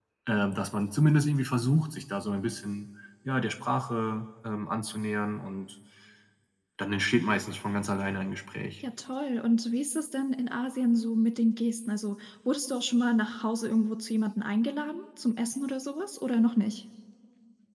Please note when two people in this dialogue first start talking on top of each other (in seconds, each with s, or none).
none